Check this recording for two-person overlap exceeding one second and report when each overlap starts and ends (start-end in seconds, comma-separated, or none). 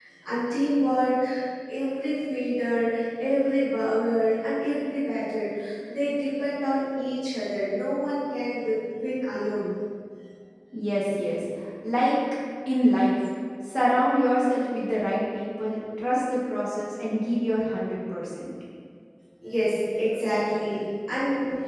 none